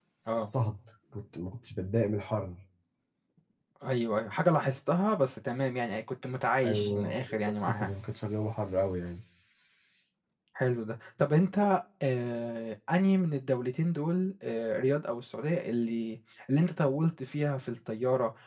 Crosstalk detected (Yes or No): Yes